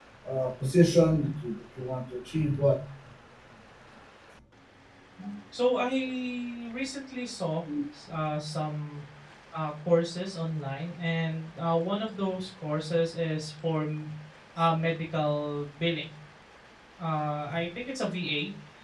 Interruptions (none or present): none